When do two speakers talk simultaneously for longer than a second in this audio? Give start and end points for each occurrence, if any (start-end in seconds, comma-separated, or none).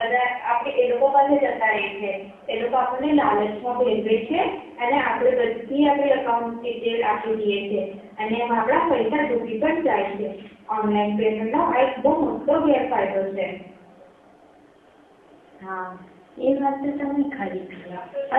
none